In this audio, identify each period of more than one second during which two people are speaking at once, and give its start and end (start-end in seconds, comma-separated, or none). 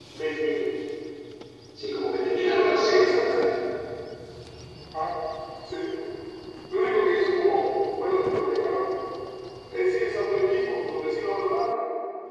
2.3-3.5